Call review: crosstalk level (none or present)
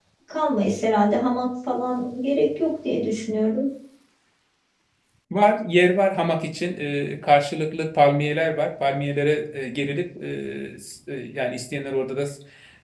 none